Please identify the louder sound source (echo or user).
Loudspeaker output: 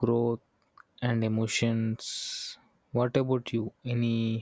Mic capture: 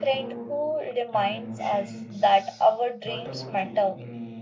user